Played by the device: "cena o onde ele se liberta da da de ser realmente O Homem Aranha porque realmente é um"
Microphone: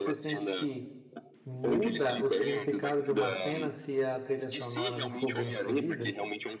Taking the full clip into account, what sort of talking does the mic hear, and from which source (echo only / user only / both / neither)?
both